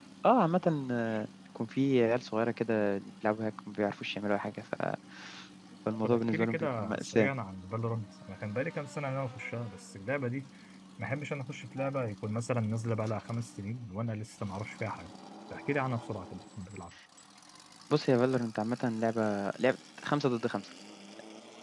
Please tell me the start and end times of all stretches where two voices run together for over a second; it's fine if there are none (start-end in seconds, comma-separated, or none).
6.0-7.3